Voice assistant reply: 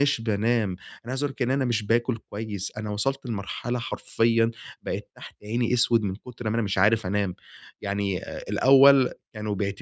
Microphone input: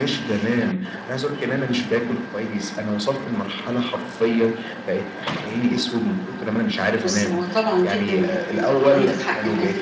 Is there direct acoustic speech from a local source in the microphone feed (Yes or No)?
Yes